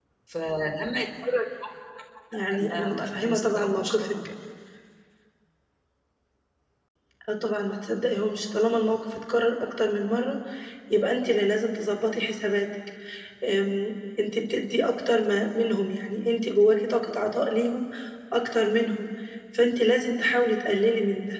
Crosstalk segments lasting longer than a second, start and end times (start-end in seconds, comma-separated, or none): 2.7-4.1